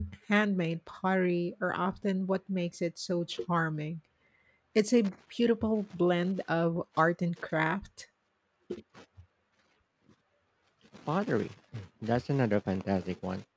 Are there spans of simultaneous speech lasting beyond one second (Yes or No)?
No